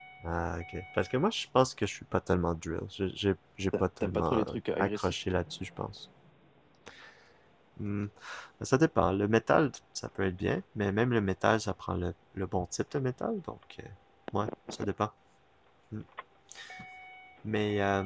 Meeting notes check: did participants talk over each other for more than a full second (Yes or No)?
Yes